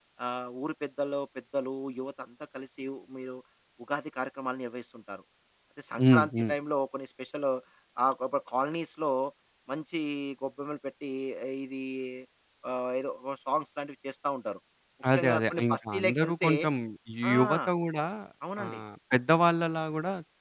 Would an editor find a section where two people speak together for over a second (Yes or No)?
Yes